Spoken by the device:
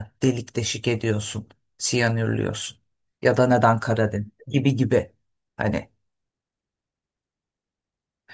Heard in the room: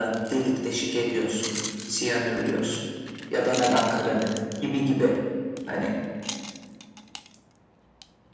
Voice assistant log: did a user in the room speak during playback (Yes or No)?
No